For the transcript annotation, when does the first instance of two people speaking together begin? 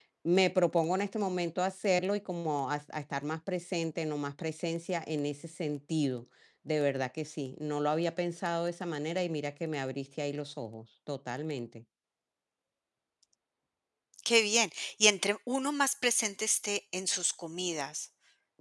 none

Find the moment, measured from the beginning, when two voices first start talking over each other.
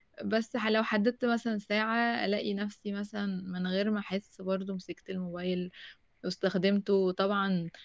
none

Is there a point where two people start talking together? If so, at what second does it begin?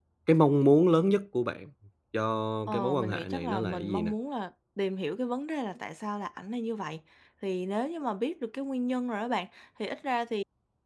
2.7 s

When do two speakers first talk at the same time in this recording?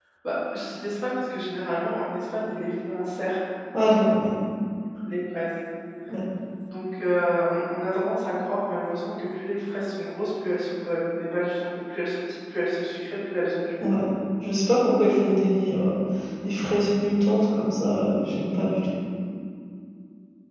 none

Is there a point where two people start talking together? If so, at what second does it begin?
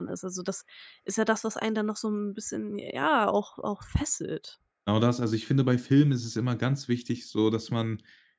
none

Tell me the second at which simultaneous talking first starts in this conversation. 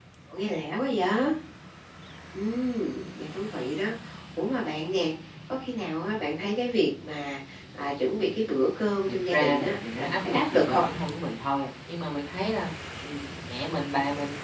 9.1 s

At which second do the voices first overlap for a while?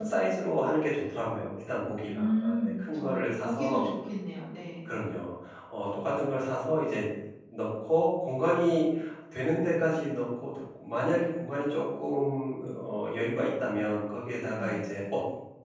2.0 s

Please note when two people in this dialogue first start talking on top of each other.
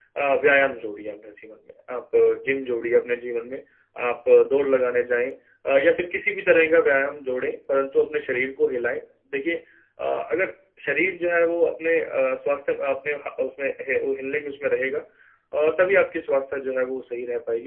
none

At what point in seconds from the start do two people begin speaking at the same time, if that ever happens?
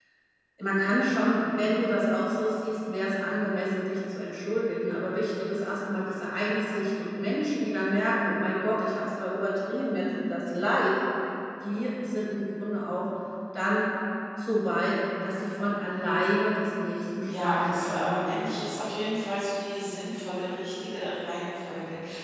17.2 s

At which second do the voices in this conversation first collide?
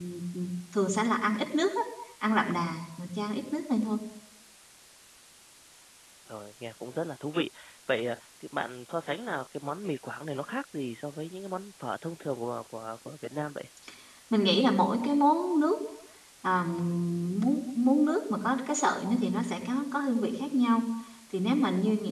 none

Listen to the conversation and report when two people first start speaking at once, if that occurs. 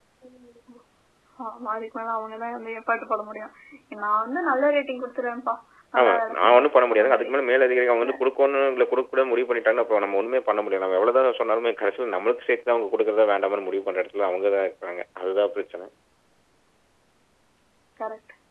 6.0 s

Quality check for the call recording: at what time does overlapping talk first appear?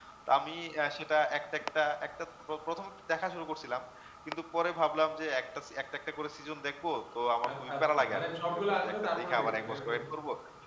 7.5 s

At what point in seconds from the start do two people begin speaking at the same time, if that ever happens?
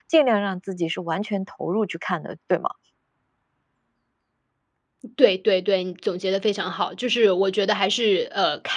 none

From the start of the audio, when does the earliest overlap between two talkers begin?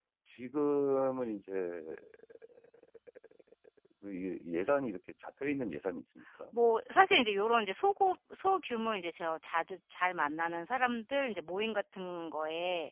none

